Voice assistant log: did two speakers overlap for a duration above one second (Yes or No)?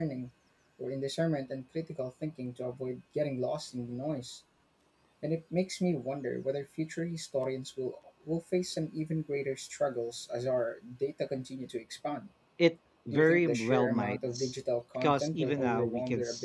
Yes